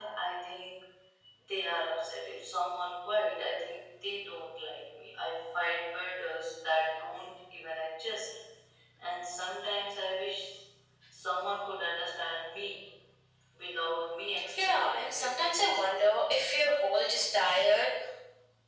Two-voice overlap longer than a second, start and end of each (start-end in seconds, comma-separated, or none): 14.6-16.0